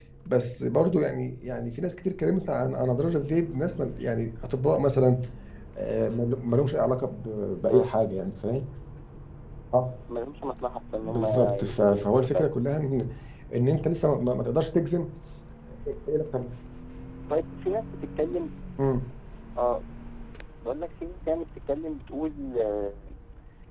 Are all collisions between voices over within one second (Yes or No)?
No